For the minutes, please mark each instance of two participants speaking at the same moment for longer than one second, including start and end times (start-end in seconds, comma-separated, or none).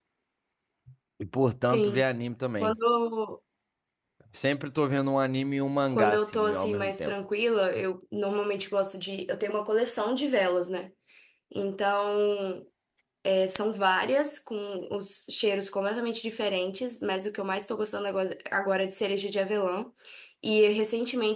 5.9-7.2